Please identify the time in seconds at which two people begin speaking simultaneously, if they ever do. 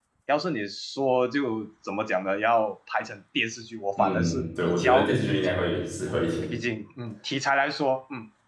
4 s

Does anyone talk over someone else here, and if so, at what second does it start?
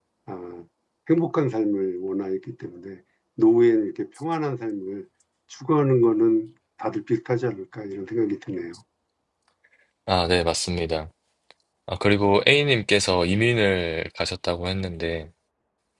none

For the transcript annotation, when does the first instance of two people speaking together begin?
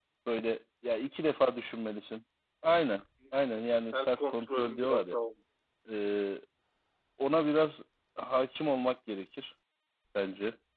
4 s

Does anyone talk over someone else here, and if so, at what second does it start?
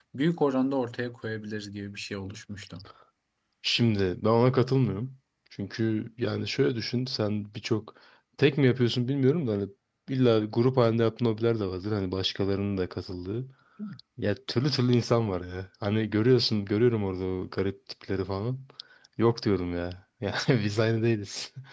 none

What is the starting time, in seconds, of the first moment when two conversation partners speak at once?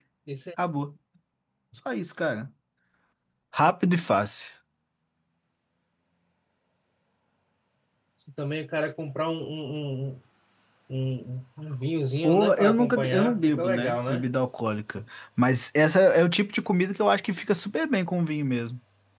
12 s

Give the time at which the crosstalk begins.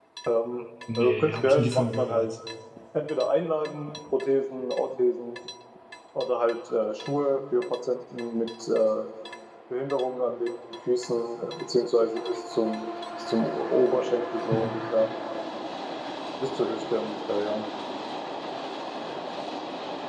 1 s

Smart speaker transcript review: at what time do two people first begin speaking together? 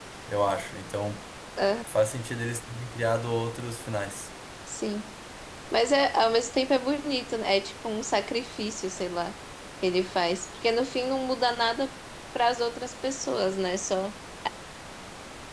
none

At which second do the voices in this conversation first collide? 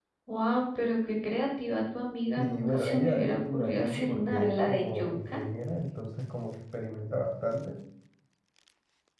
2 s

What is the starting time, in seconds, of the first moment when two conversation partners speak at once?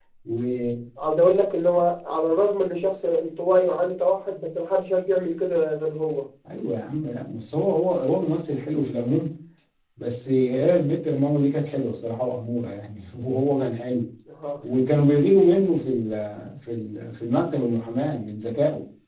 none

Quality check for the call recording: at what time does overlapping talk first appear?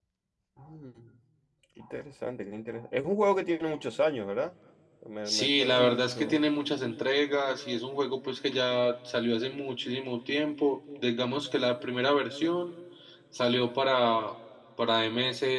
5 s

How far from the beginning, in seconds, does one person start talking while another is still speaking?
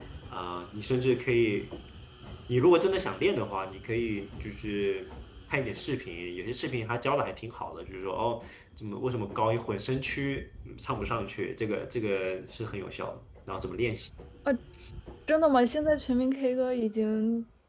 none

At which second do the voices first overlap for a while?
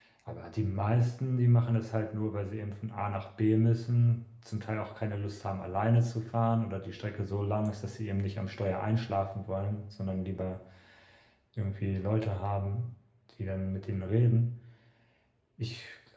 none

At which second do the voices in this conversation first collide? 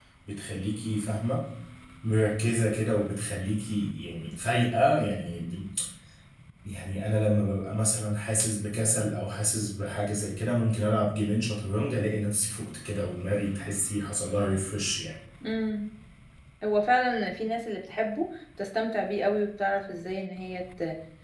none

